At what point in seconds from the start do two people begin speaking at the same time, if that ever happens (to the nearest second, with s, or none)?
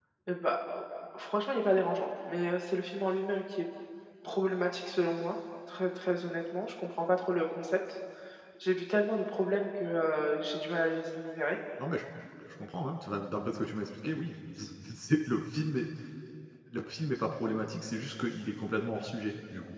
none